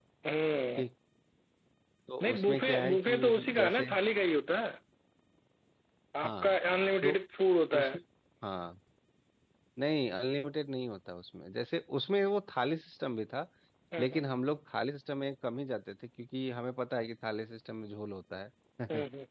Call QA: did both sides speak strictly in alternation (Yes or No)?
No